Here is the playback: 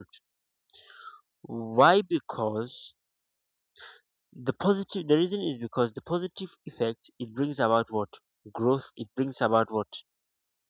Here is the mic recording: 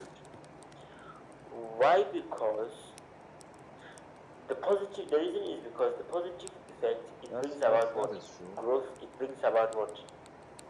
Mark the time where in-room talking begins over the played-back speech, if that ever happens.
7.3 s

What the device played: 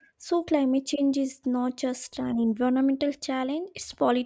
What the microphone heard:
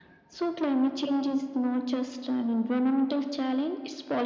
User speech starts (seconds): none

